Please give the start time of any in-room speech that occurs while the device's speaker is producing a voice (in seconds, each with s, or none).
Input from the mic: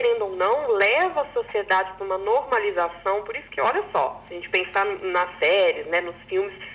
none